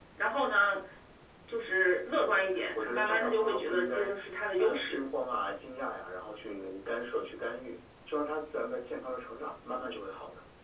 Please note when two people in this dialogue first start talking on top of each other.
2.3 s

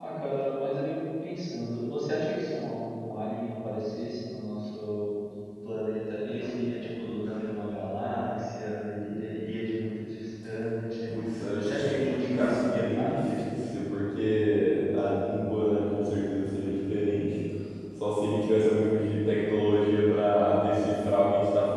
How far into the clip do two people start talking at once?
11.6 s

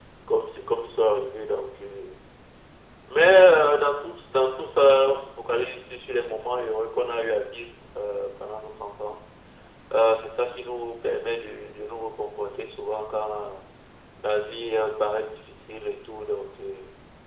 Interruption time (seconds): none

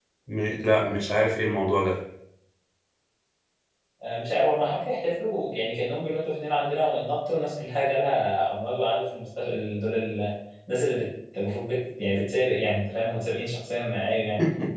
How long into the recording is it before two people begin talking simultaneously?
none

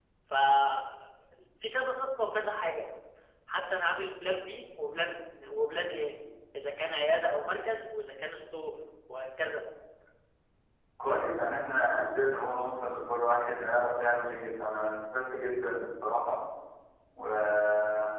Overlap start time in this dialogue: none

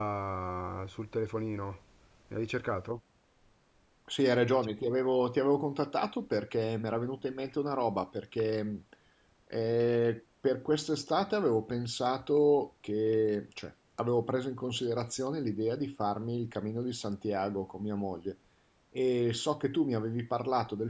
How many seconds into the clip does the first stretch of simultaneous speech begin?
none

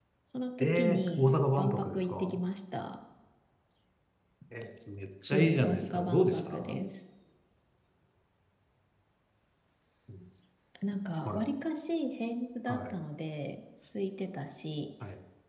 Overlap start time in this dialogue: 0.6 s

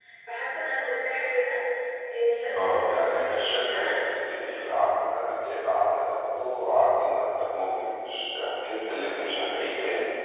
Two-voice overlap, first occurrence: 2.3 s

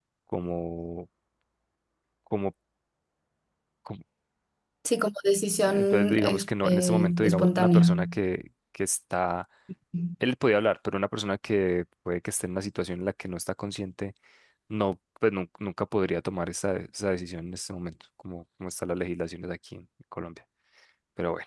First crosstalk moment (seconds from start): 5.7 s

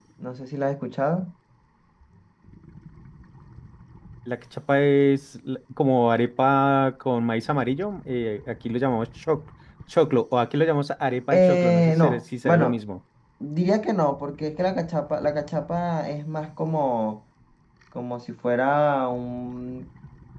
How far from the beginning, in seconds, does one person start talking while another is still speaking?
11.3 s

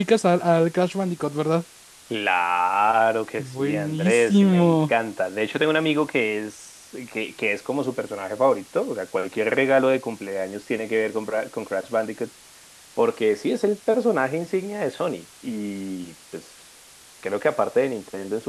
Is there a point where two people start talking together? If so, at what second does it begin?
3.4 s

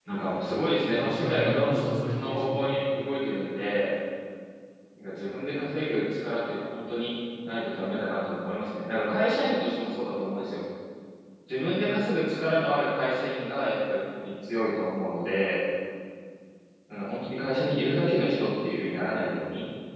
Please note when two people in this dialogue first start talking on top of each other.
0.9 s

